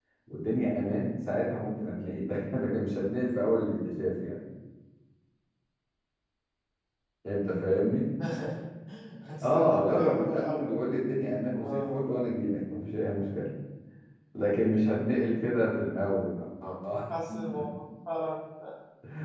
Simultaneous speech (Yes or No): Yes